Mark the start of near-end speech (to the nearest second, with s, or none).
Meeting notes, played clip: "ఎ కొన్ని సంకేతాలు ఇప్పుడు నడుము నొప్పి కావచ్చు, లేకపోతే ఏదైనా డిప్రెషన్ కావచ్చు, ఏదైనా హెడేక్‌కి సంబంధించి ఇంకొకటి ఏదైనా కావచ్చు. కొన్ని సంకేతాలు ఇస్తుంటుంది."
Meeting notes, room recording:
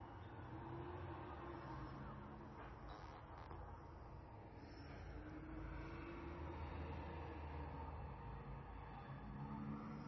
none